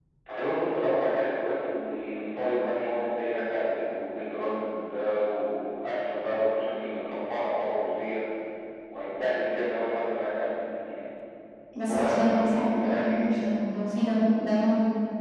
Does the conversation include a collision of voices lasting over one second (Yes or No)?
Yes